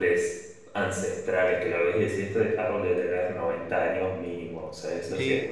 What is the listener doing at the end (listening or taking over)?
taking over